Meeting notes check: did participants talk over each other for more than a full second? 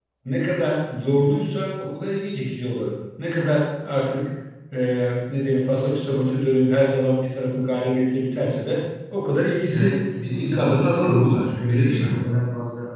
Yes, from 9.7 s

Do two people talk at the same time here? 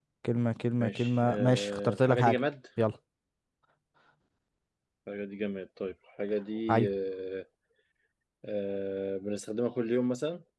Yes, from 0.8 s

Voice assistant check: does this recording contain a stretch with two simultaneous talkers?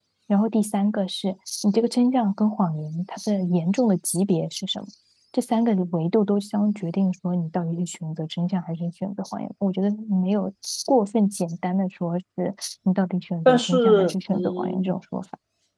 Yes, from 13.4 s

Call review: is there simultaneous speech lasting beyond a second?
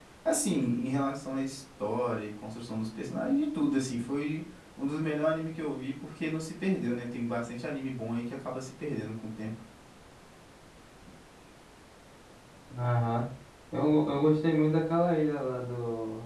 No

